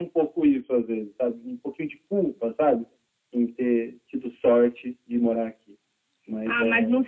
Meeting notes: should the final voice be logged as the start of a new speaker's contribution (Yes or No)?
Yes